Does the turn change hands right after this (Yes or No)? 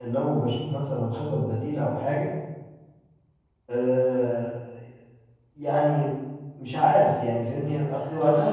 Yes